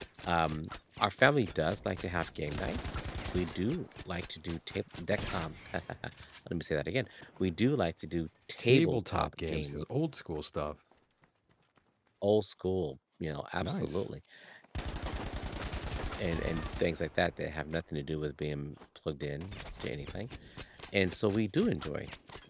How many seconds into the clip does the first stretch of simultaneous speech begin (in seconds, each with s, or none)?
8.6 s